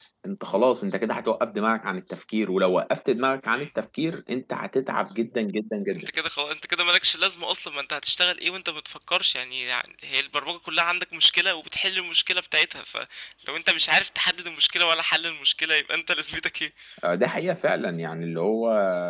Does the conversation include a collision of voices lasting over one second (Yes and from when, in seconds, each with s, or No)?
No